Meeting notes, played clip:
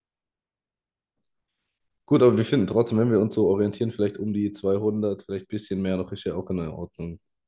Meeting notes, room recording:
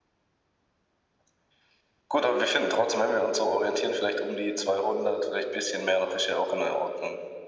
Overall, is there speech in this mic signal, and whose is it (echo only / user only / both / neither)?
echo only